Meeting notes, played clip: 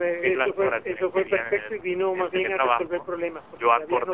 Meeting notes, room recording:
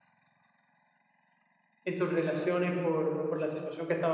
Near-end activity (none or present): present